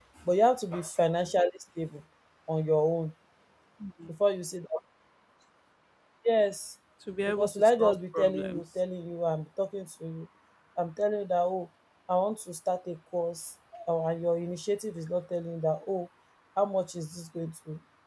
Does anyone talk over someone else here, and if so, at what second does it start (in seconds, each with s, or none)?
7.3 s